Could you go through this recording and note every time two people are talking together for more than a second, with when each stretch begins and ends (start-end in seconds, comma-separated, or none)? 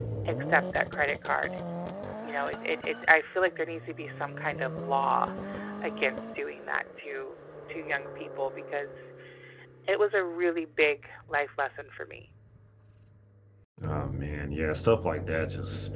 none